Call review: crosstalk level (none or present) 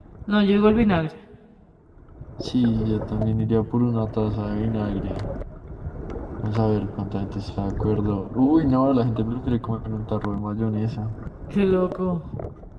none